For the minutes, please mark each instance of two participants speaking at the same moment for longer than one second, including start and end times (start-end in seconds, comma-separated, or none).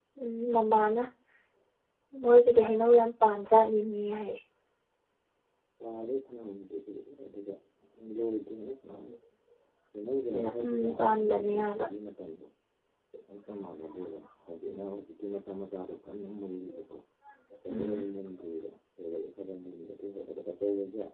10.3-11.8